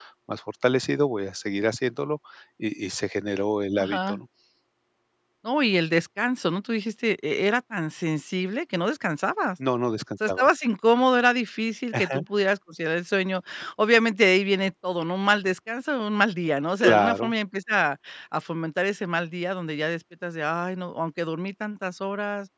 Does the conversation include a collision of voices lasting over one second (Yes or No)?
No